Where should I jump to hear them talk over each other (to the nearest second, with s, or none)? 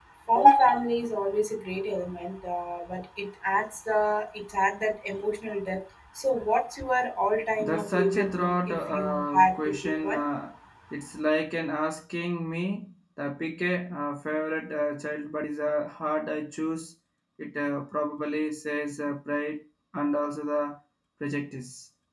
8 s